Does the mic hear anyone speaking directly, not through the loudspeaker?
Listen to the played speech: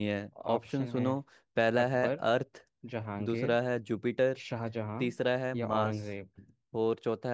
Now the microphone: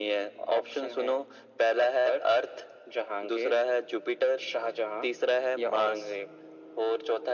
No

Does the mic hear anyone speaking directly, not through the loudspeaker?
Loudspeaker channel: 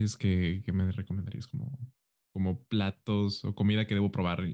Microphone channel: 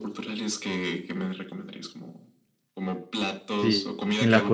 Yes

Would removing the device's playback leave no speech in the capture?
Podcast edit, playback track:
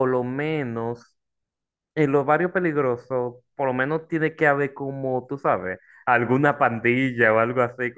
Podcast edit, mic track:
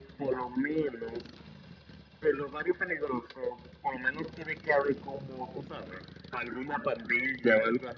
Yes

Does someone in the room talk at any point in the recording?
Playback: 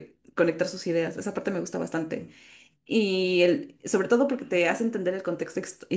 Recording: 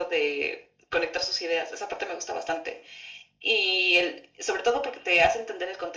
No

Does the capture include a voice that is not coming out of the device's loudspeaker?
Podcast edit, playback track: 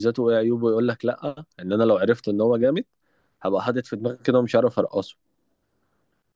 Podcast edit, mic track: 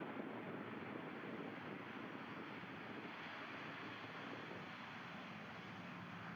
No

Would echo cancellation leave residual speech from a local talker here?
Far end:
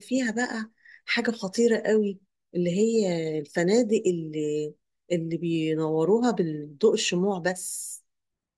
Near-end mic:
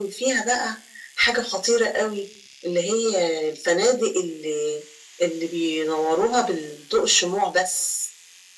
No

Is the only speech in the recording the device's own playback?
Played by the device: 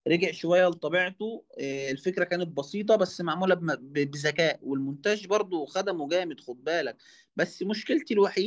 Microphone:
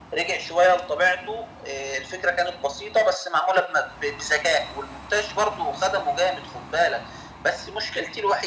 Yes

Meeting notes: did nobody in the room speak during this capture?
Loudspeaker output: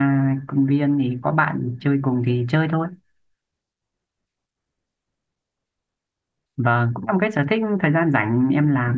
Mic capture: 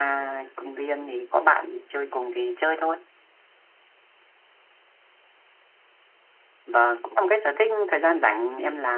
Yes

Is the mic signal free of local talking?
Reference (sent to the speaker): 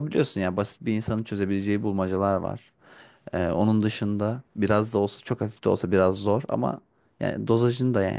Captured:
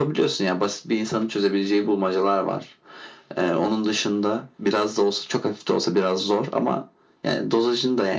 Yes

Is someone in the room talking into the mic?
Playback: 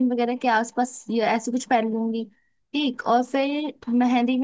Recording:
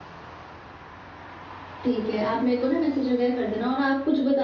Yes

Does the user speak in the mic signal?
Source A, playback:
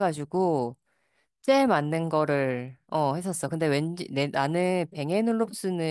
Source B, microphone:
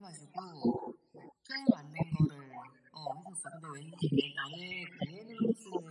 No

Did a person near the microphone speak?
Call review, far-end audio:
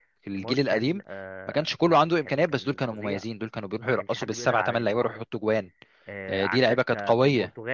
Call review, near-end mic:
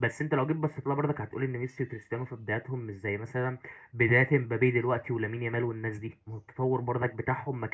Yes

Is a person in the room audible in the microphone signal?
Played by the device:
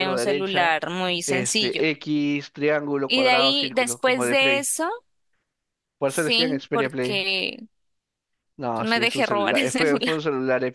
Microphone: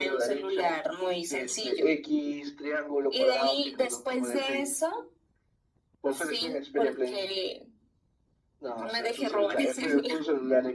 No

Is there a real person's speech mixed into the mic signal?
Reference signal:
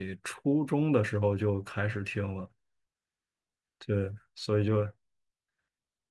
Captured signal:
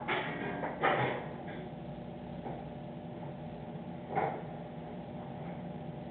No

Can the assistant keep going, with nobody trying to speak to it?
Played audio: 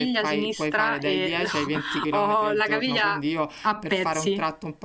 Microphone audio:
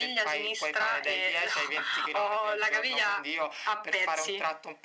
Yes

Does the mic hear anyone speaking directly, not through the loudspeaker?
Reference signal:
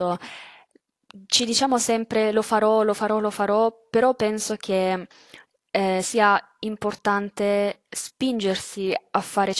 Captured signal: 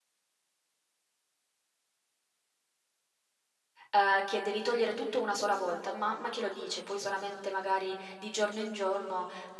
Yes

